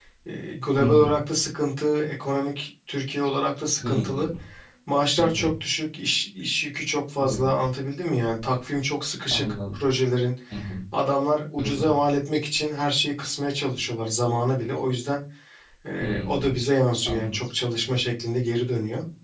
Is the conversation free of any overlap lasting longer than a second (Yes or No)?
Yes